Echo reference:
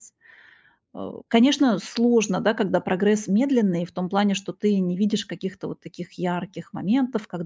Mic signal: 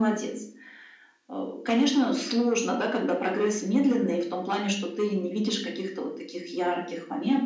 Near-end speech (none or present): none